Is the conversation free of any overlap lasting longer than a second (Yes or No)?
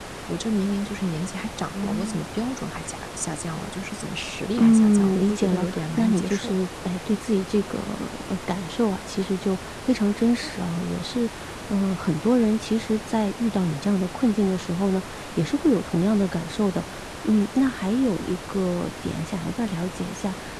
No